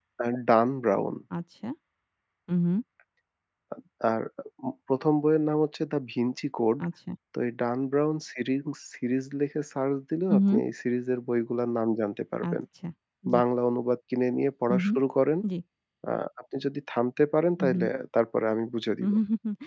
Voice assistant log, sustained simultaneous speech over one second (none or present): none